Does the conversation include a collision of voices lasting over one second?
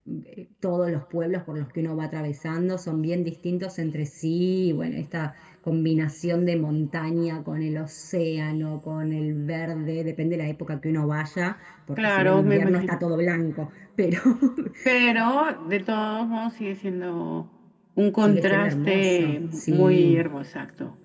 Yes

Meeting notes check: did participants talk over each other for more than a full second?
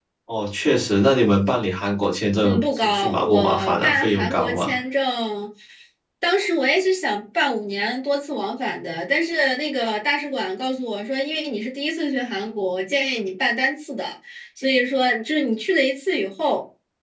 Yes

